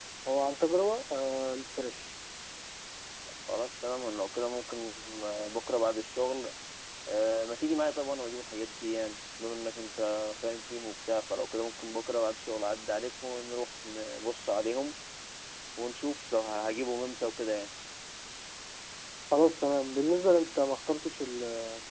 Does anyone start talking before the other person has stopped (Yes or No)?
No